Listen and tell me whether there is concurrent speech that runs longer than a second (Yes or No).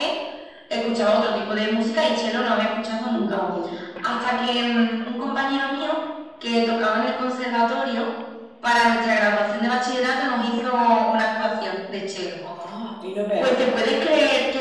No